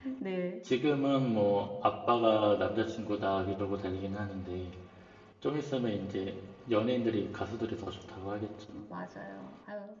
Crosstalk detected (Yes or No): No